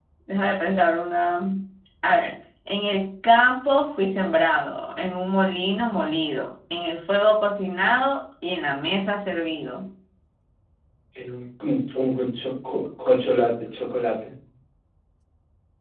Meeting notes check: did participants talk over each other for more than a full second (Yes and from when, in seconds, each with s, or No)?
No